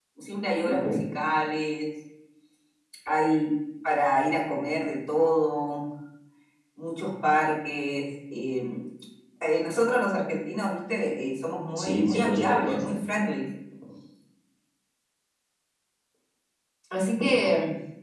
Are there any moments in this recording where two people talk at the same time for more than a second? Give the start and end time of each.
11.8-13.0

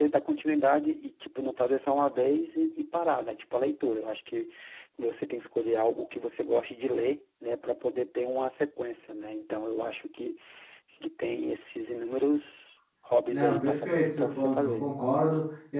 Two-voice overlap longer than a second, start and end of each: 13.3-14.9

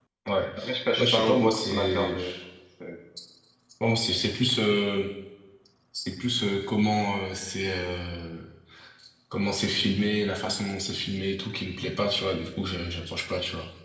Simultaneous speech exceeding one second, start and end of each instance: 1.0-2.3

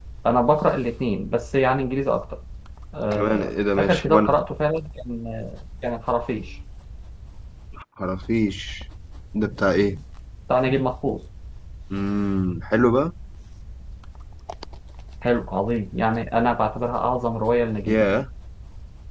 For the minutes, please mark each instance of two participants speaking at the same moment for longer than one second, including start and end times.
3.1-4.3

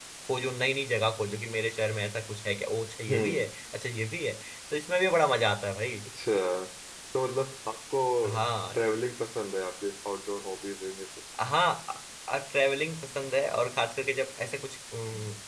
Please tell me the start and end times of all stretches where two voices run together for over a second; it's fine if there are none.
none

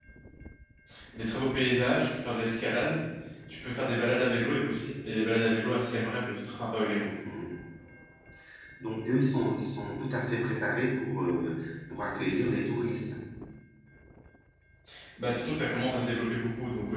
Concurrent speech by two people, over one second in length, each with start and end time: none

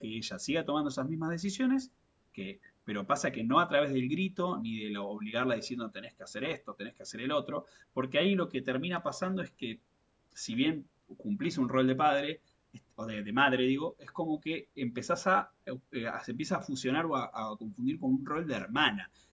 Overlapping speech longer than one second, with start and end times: none

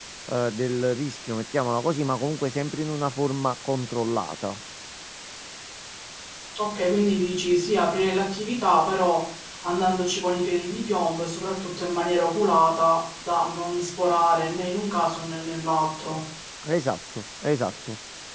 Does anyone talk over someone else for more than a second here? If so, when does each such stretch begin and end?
none

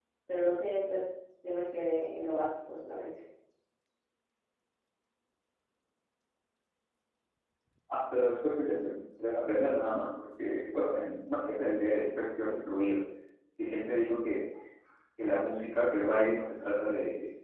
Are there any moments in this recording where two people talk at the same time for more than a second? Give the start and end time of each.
none

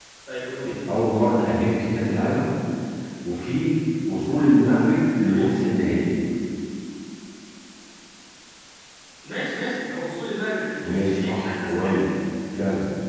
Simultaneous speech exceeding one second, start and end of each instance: 10.8-12.0

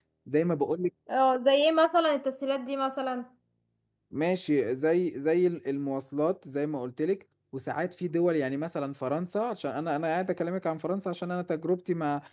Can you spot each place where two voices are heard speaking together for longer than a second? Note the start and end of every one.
none

